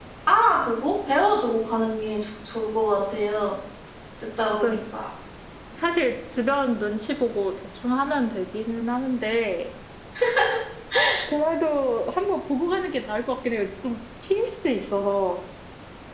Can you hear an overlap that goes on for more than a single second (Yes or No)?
No